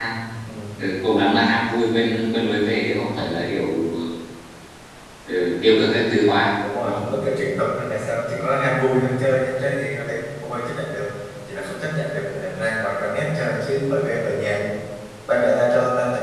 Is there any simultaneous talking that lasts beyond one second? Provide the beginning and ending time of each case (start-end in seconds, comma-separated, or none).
none